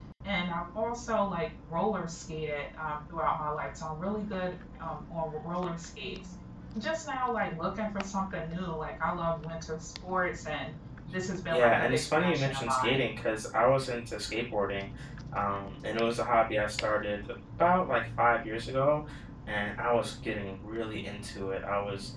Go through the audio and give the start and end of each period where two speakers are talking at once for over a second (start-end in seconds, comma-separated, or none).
11.5-13.0